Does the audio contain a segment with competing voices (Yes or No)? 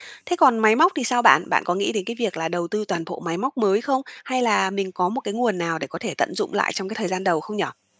No